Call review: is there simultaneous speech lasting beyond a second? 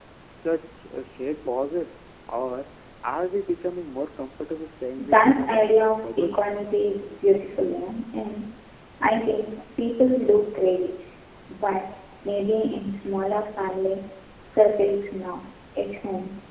Yes, from 5.0 s

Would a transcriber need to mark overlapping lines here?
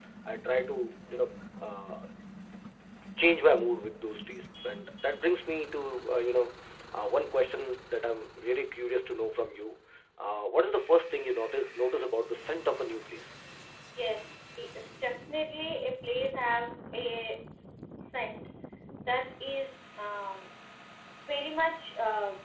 No

